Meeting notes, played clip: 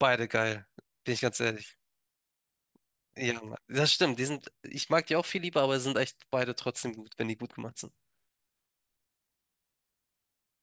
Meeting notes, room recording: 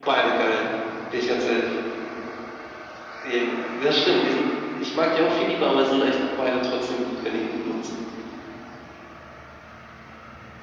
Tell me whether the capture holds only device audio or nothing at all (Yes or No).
Yes